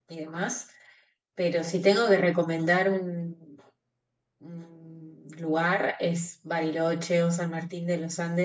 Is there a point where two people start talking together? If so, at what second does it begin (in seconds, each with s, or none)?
none